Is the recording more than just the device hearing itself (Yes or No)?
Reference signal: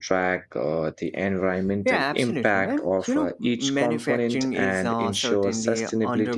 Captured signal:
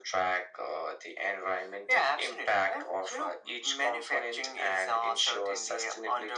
No